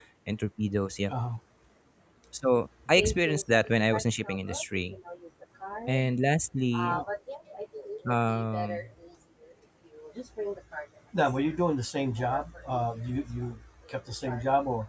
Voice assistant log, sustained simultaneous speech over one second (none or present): present